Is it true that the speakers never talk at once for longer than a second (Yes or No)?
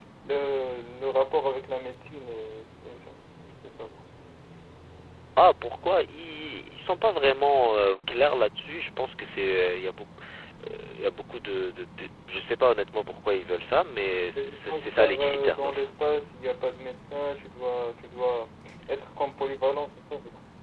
No